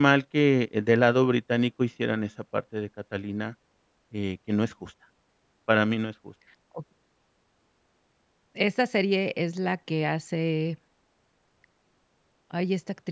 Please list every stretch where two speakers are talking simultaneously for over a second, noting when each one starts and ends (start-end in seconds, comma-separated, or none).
none